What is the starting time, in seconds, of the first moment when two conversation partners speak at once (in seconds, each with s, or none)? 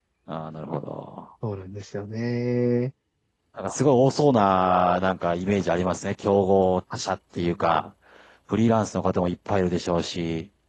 none